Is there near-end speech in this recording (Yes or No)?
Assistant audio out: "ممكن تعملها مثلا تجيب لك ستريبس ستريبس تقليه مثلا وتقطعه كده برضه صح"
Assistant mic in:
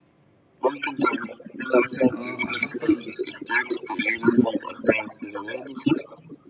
Yes